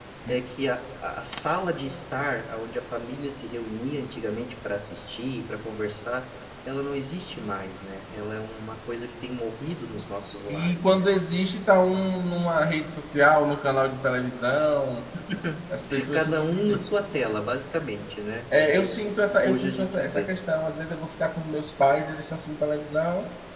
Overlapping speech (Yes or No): Yes